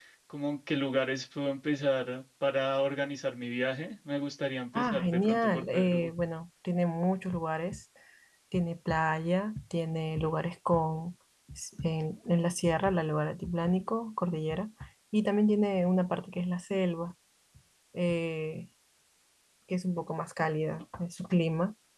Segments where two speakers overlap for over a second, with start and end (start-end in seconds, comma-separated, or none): 4.7-6.1